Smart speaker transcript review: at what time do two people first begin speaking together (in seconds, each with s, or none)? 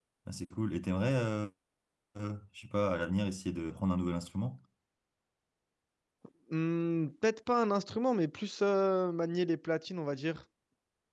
none